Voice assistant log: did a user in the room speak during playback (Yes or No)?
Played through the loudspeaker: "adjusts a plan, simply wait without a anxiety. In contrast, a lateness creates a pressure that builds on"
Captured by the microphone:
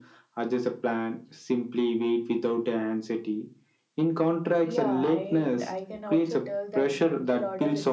Yes